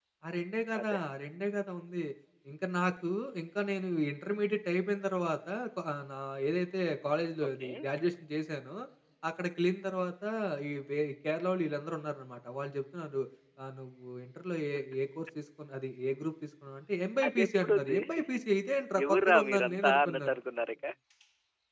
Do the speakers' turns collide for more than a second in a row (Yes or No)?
Yes